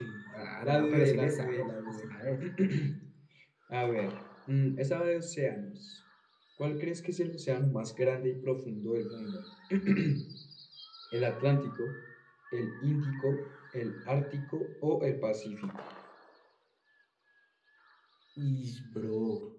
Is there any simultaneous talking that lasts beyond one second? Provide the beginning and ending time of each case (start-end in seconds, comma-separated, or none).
0.6-2.0